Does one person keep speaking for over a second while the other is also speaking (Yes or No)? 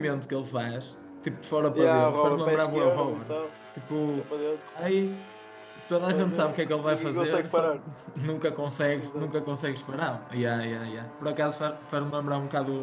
Yes